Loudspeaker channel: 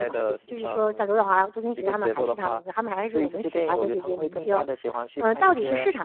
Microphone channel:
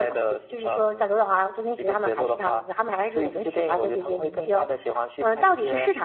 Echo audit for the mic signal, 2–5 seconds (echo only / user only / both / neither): echo only